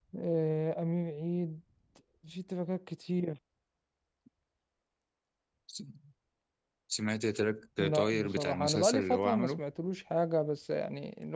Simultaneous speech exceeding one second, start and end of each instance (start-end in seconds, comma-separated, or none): 7.8-9.6